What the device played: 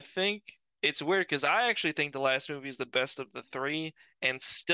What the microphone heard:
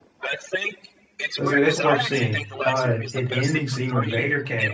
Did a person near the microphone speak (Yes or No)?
Yes